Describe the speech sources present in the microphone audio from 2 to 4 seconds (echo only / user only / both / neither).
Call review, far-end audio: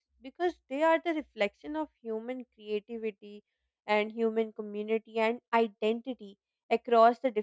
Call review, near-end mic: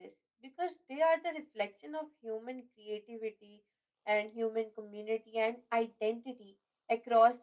echo only